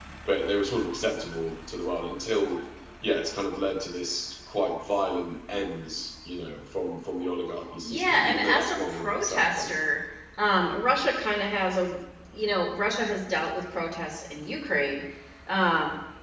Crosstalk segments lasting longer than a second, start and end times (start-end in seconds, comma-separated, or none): 7.9-9.7